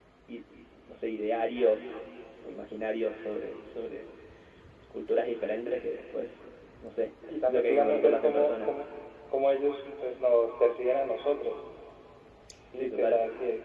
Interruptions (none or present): present